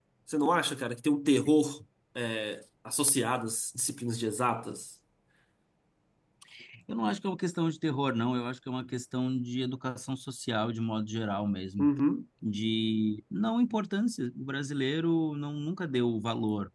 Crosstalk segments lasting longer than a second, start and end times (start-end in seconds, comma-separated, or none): none